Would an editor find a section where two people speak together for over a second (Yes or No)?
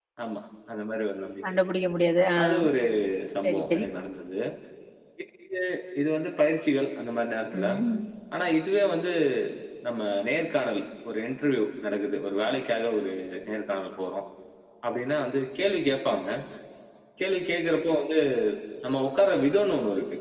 No